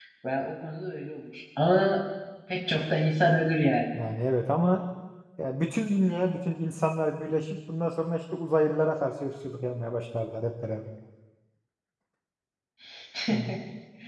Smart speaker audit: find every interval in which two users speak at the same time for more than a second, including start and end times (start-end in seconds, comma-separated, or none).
none